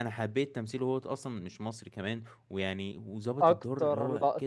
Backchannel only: No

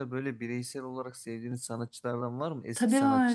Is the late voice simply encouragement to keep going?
No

